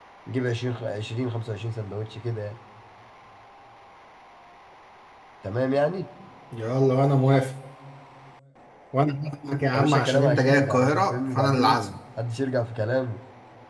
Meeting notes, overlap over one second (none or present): present